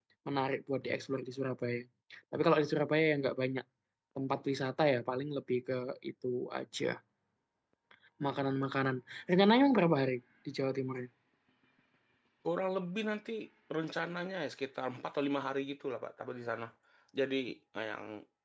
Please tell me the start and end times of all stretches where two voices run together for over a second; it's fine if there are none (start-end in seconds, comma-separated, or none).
none